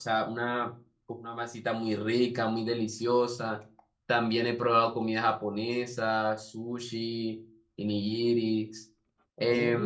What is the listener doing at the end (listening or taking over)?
taking over